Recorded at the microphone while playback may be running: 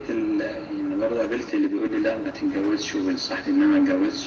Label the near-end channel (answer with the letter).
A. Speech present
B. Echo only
B